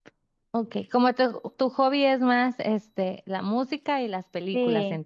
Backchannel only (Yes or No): No